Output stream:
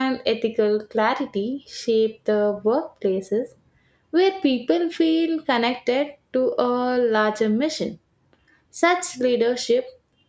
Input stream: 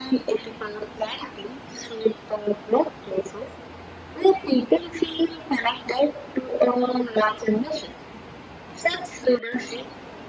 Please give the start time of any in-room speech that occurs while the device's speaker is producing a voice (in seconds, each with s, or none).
none